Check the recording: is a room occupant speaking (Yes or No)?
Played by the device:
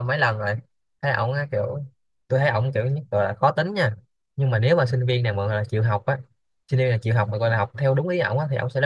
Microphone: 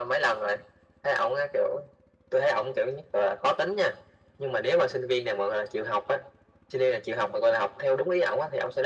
No